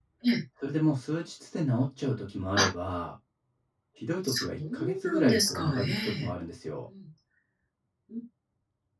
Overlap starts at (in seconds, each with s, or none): 4.2 s